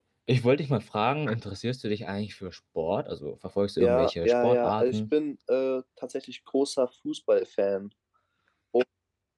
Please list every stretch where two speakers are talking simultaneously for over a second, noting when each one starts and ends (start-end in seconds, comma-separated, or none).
3.8-5.0